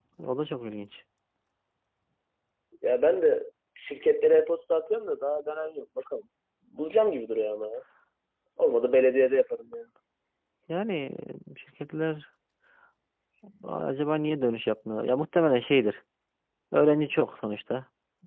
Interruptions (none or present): none